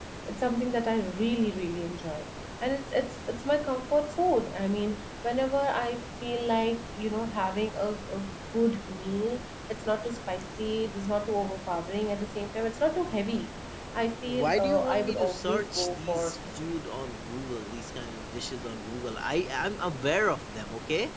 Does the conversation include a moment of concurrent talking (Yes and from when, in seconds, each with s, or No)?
Yes, from 14.2 s